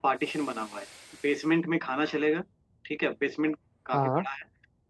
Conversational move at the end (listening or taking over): listening